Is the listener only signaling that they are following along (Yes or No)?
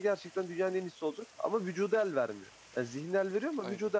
Yes